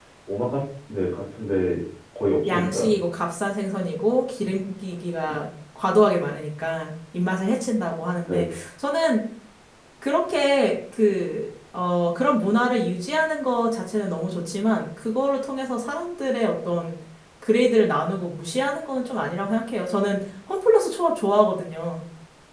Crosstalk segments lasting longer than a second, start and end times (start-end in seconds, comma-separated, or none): none